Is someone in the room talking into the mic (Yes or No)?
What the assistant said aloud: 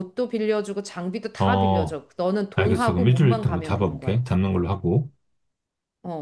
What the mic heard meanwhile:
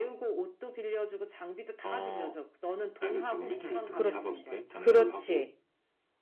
Yes